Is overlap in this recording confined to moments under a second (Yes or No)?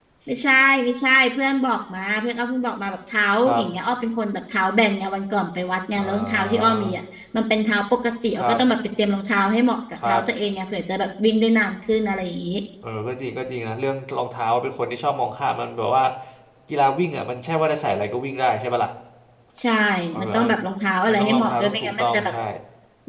No